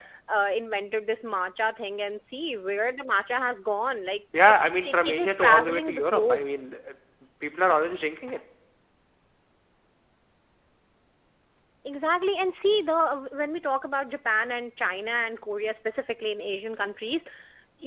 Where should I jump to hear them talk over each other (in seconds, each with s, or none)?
4.3 s